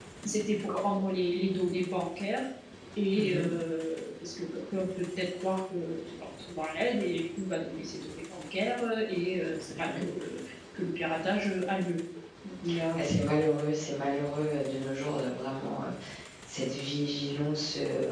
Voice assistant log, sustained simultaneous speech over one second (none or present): none